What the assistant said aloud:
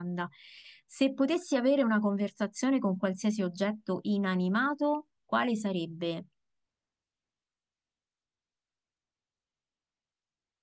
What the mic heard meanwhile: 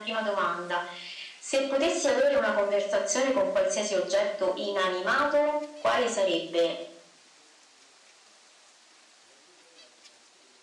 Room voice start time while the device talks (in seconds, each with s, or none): none